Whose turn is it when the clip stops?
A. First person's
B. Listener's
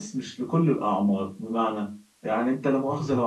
A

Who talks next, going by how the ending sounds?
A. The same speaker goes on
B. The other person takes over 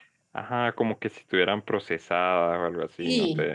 B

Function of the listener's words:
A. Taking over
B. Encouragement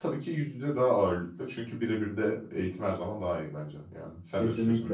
A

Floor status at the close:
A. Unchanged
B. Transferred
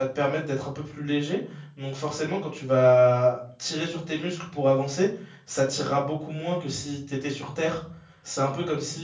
A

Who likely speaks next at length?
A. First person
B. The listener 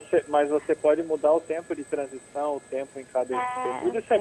B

